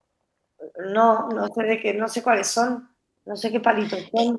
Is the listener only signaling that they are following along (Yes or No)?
No